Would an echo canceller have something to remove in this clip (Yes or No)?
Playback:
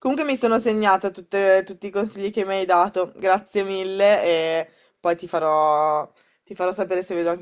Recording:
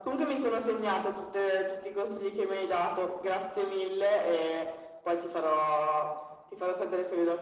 Yes